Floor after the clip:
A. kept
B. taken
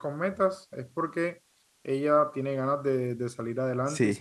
B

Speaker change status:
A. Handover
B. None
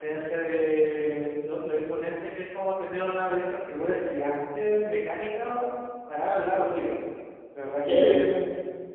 B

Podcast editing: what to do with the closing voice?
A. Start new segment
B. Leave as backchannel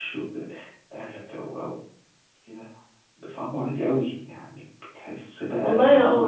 A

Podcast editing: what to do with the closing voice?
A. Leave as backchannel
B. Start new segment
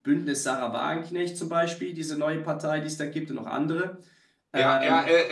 B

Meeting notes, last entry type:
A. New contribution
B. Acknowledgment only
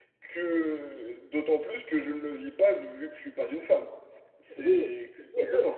A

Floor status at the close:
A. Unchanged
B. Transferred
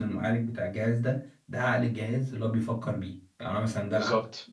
A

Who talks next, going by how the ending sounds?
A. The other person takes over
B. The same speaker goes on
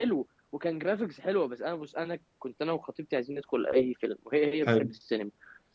B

